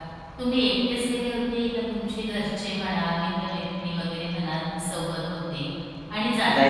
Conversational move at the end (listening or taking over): listening